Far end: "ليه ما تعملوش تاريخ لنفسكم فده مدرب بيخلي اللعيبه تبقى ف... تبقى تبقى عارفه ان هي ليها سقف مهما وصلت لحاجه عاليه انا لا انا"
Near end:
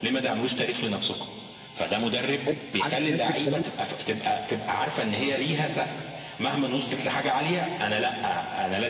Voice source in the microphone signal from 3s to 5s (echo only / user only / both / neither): both